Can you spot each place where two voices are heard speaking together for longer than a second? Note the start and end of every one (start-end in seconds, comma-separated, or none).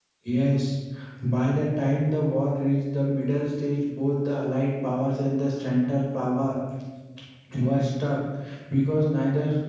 none